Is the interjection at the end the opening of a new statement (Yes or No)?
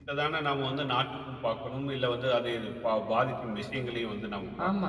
Yes